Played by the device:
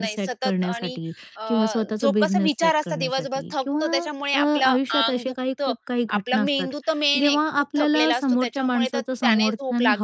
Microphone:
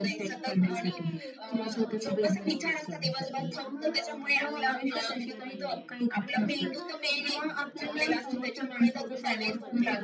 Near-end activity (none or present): present